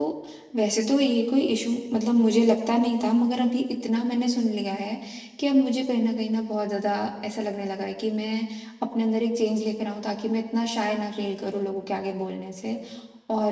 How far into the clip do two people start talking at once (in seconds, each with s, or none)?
none